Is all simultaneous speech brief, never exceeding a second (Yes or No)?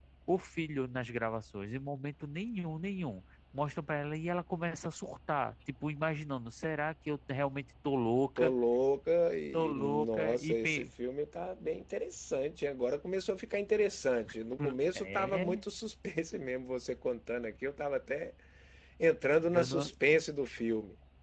No